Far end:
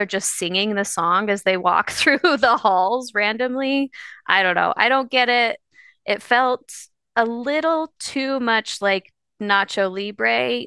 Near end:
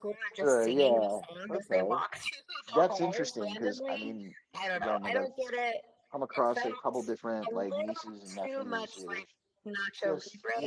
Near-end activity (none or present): present